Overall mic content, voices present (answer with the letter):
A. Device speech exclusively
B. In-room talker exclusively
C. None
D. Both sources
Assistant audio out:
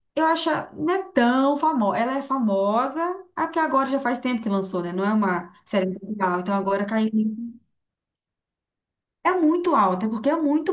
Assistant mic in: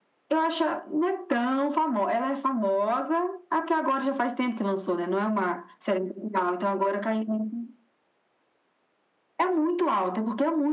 A